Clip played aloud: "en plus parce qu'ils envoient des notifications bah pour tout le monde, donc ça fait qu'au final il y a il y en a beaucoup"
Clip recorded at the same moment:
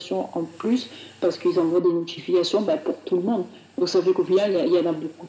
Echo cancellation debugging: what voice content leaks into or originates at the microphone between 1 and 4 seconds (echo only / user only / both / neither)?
echo only